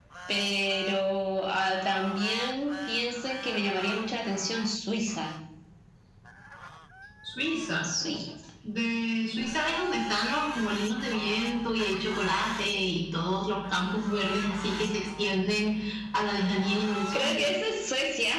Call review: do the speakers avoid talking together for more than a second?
Yes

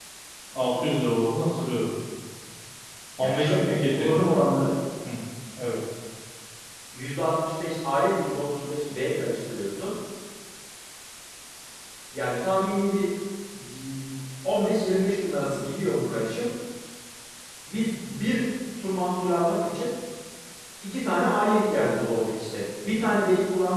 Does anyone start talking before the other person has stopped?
Yes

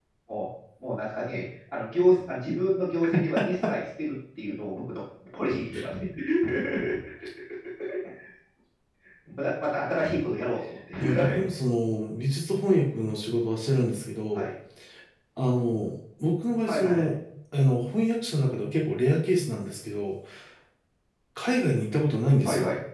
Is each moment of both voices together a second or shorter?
Yes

